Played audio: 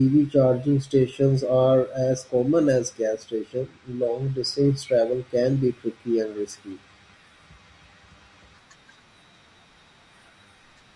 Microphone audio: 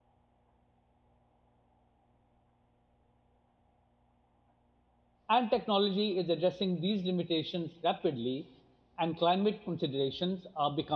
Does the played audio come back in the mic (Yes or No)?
No